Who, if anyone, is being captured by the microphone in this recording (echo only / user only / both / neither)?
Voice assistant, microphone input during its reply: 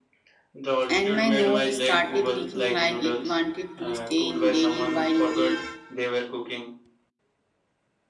both